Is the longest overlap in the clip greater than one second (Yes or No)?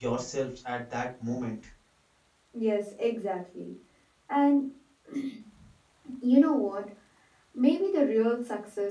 No